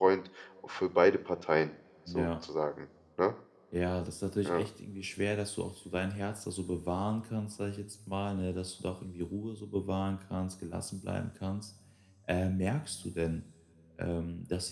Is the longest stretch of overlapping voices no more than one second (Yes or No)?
Yes